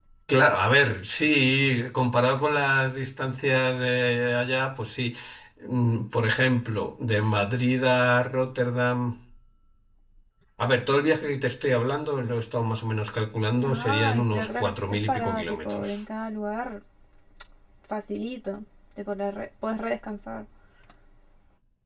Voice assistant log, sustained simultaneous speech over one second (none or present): present